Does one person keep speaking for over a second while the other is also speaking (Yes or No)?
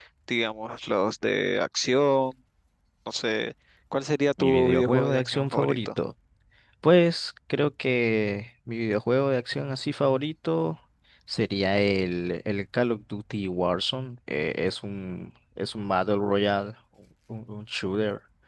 Yes